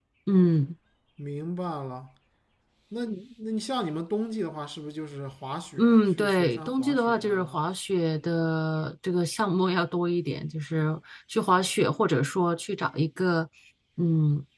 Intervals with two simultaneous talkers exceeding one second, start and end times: 5.8-7.5

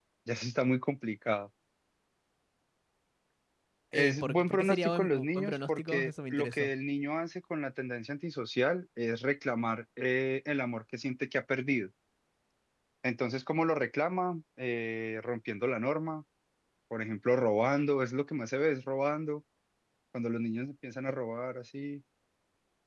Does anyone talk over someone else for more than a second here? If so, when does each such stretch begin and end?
3.9-6.7

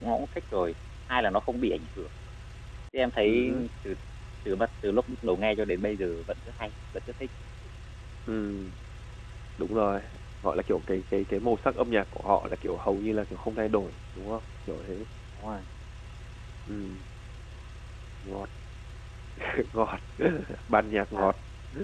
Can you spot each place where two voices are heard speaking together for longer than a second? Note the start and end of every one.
none

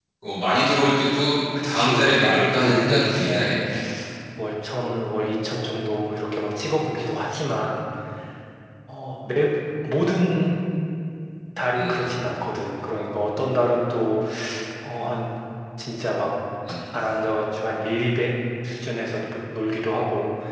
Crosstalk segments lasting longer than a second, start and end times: 1.6-3.6

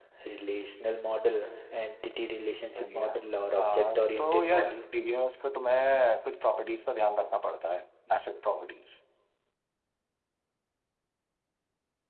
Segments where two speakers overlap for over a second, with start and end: 3.6-4.8

